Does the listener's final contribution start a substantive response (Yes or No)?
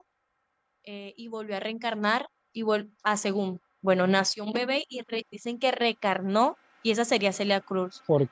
No